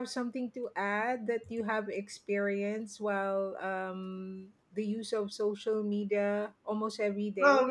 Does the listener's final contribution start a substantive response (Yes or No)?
Yes